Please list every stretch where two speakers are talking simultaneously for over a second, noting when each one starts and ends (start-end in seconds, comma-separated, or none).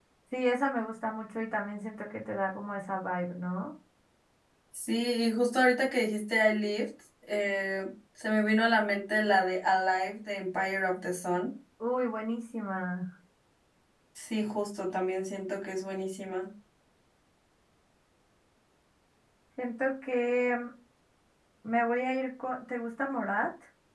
none